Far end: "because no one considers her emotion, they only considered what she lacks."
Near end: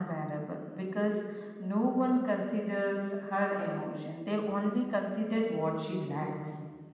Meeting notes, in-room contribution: none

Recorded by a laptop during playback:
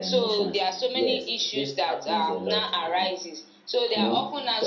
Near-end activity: present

